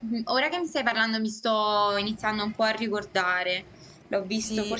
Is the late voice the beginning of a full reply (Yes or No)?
Yes